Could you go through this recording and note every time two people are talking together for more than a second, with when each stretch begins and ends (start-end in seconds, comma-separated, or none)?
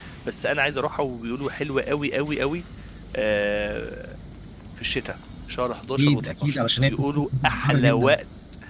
6.0-8.2